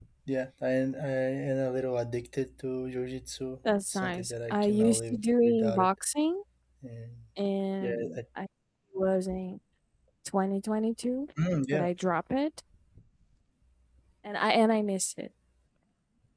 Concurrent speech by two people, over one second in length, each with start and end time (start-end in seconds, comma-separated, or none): 3.9-5.9